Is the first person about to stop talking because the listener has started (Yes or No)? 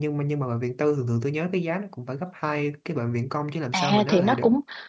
Yes